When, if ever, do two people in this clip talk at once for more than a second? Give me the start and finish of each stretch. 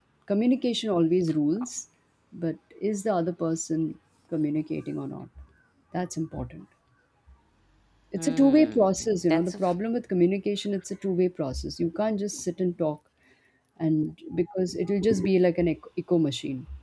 8.2-9.6

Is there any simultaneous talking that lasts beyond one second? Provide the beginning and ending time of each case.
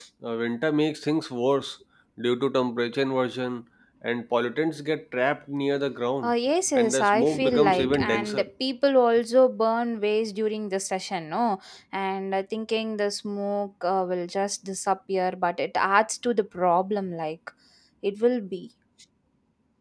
6.8-8.4

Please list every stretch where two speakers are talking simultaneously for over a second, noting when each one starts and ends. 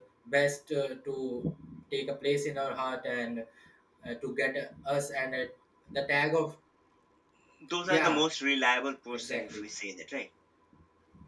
none

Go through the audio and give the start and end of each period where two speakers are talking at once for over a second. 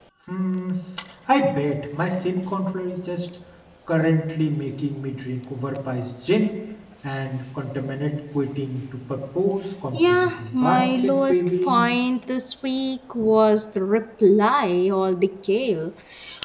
9.9-11.8

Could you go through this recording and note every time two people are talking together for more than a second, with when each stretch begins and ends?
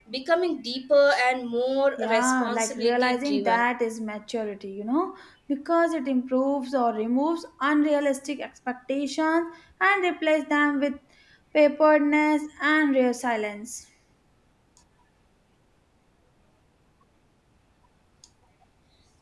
2.0-3.6

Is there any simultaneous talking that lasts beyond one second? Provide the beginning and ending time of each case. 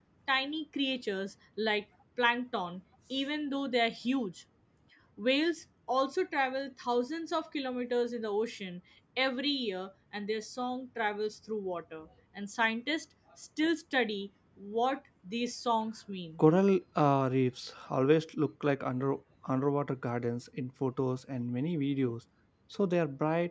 none

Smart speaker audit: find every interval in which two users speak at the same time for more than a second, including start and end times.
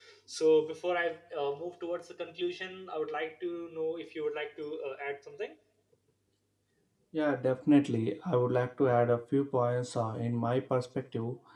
none

